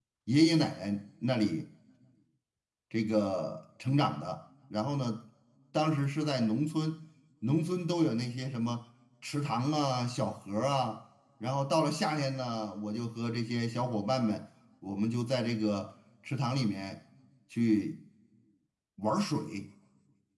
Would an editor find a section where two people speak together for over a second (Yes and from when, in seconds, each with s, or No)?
No